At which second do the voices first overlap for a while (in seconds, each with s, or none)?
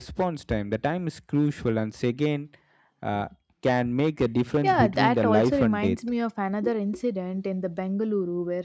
4.6 s